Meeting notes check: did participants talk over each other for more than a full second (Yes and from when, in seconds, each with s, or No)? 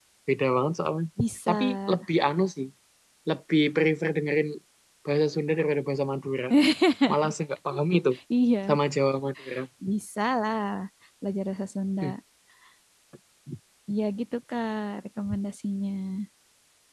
No